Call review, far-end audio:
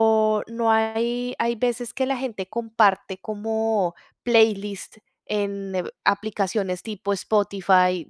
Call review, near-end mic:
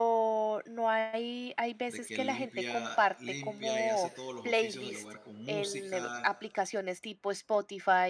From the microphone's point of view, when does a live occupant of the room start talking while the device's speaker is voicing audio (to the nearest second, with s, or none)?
2 s